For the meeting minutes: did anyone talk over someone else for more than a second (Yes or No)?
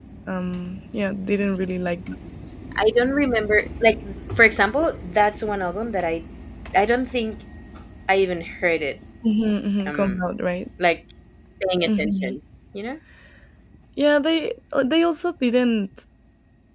No